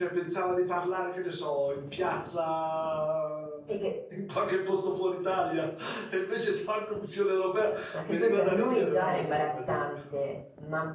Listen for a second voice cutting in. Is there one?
Yes, from 7.9 s

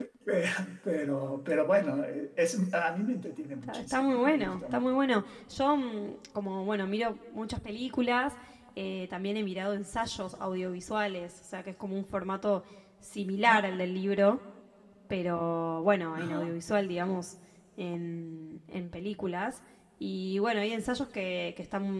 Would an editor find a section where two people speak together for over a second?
Yes, from 3.6 s

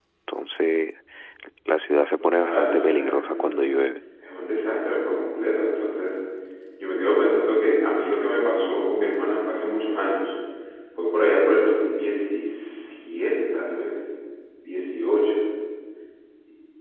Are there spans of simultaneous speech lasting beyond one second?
Yes, from 2.2 s

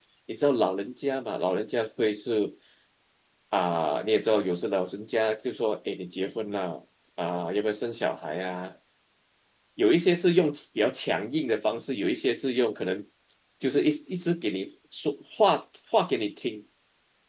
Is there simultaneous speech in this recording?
No

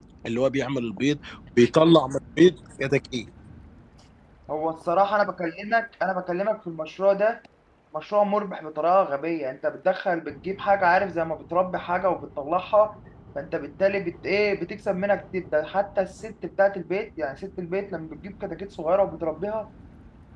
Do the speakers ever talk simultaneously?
No

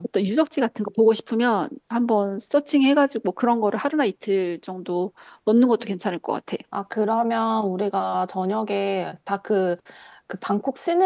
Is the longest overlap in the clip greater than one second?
No

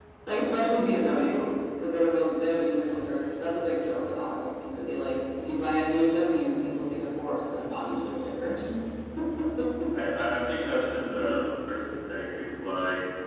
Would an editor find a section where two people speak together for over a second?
No

